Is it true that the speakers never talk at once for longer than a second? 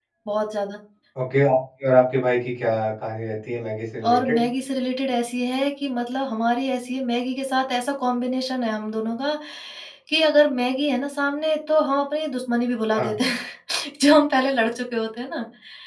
Yes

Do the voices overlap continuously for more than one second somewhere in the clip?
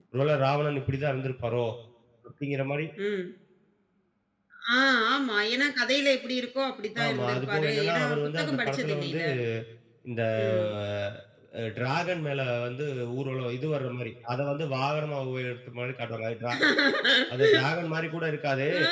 Yes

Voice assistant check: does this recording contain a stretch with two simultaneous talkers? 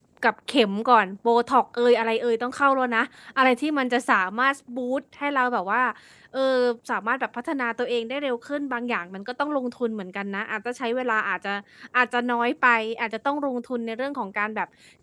No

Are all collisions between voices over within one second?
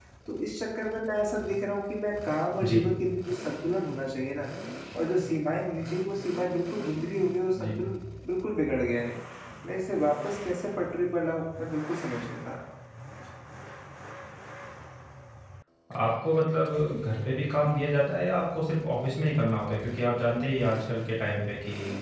Yes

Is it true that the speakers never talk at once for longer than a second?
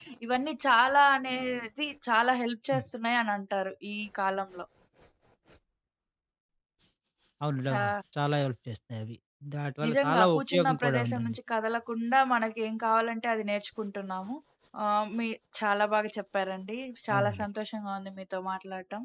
No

